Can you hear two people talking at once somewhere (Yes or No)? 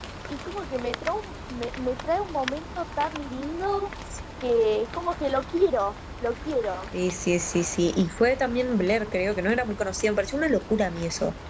No